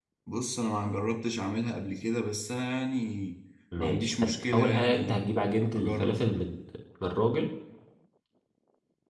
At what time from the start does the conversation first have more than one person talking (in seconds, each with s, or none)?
3.8 s